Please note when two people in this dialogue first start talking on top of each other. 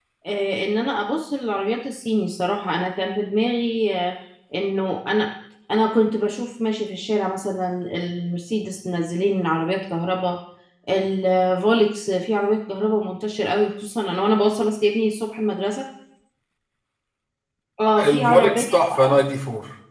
18 s

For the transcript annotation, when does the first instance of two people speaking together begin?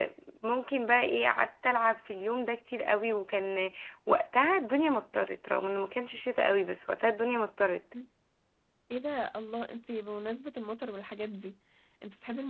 none

